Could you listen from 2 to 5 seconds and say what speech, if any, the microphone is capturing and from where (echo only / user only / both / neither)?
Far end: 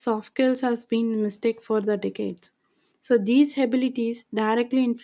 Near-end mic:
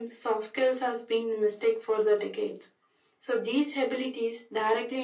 echo only